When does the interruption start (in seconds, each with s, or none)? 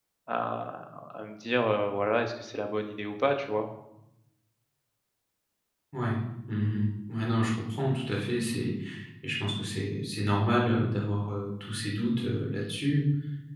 none